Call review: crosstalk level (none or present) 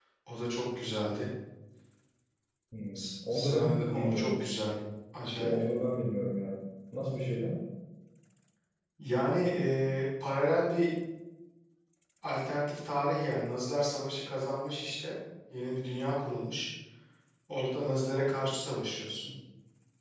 present